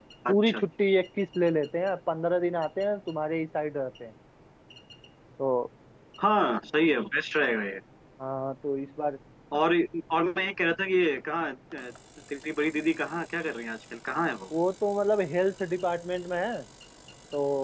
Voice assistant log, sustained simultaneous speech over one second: none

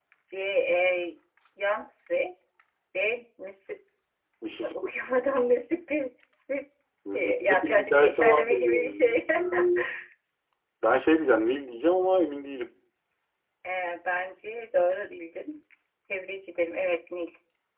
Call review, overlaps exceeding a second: present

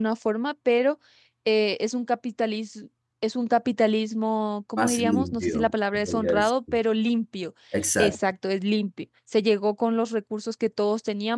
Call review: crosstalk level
present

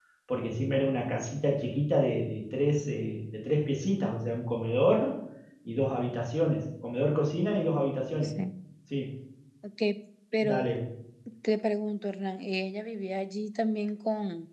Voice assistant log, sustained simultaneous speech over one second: none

